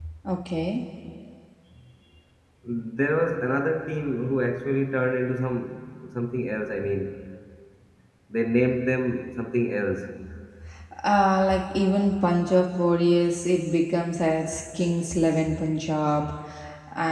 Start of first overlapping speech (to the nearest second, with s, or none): none